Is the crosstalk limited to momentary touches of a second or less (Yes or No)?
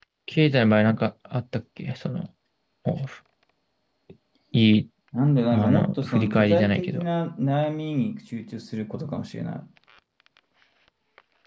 No